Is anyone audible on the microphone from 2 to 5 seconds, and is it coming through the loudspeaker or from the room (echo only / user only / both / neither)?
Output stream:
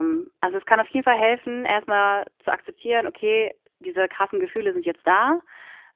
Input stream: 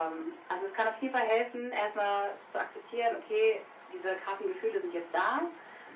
echo only